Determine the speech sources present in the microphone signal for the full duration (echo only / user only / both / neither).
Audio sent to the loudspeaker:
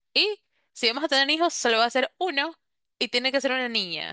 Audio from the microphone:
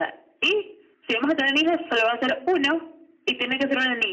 echo only